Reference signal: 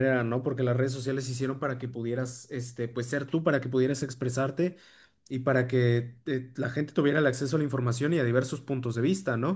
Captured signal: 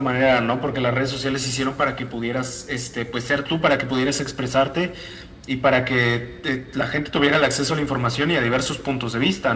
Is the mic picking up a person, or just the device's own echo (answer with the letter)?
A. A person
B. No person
B